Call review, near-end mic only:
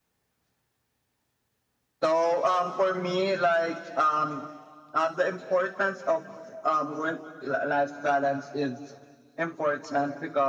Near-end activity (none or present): none